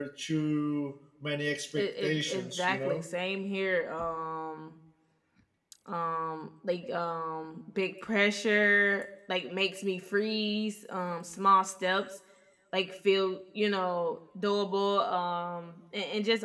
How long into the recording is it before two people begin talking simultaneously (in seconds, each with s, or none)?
1.7 s